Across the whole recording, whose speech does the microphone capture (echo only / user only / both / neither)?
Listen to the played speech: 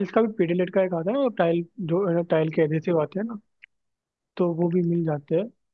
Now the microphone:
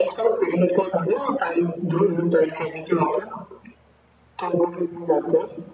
echo only